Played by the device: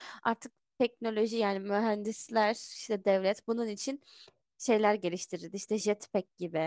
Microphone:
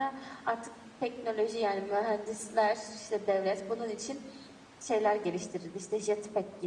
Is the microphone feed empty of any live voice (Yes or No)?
Yes